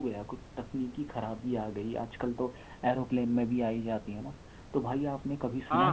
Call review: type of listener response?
listening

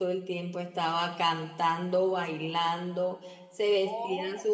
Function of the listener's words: listening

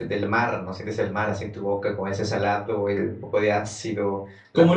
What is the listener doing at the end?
taking over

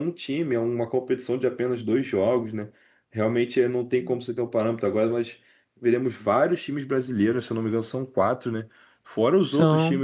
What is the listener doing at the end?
listening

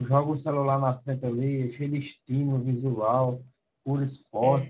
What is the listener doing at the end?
listening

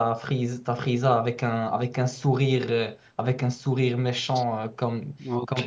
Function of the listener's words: listening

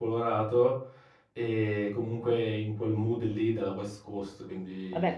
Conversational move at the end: taking over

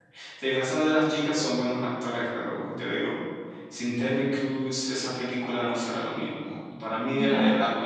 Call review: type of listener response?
listening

